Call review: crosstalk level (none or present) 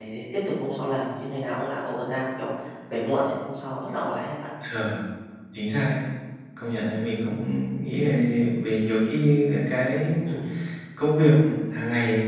none